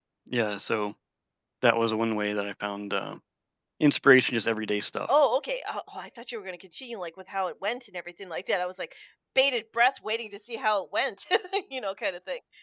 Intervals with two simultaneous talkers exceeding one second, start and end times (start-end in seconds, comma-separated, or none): none